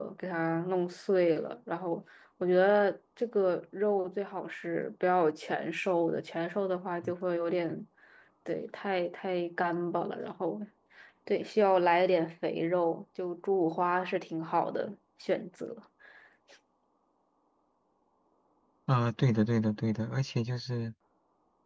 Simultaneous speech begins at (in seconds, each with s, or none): none